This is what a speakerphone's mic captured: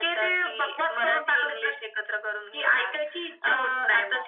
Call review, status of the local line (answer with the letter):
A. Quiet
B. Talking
A